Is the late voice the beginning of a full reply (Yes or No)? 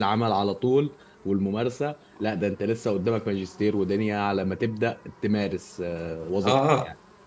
Yes